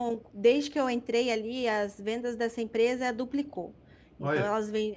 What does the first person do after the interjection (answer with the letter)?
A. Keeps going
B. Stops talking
A